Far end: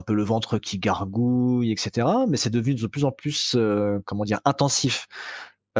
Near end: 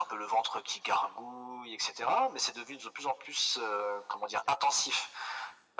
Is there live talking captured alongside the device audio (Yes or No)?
No